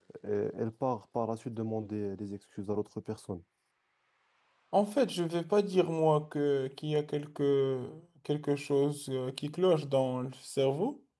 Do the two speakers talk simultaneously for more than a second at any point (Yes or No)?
No